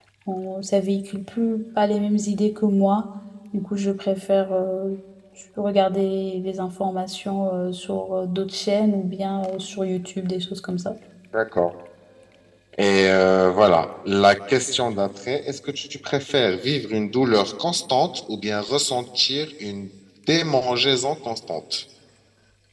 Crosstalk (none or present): none